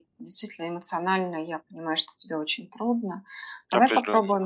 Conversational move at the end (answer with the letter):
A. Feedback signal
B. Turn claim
A